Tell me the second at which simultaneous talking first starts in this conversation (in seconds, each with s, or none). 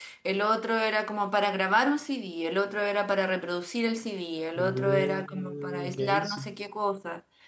4.6 s